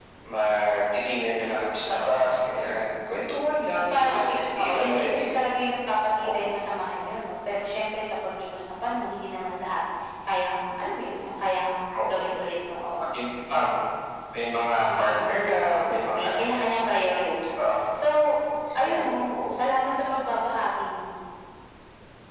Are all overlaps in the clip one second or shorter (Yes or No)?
No